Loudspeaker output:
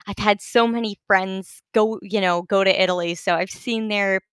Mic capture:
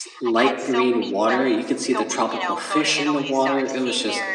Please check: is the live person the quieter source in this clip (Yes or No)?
No